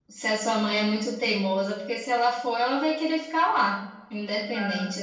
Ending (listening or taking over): taking over